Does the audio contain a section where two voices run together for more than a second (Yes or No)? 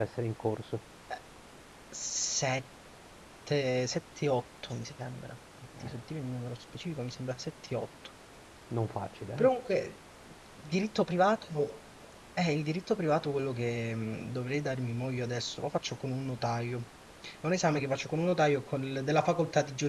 No